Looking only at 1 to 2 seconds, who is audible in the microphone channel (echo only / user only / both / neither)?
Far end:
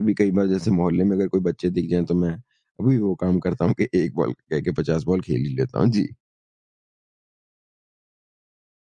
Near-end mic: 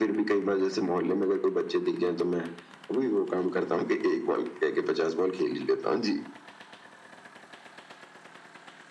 echo only